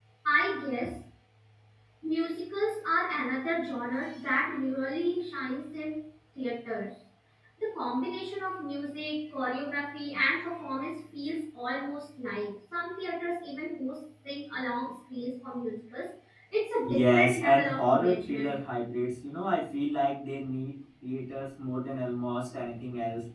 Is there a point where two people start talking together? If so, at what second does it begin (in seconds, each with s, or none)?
16.9 s